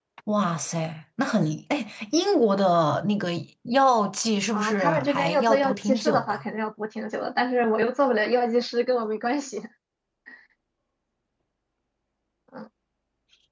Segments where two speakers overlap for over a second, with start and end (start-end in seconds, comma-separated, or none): 4.5-6.4